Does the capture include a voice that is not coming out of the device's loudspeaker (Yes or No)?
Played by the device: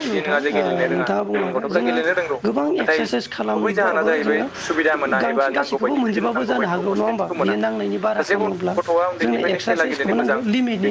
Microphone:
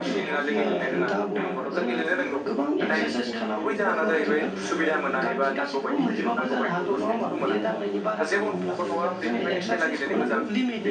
Yes